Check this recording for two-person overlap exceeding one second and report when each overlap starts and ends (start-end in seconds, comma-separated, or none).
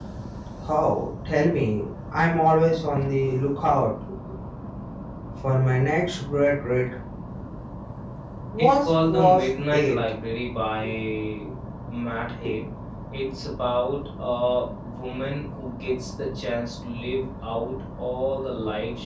8.6-10.0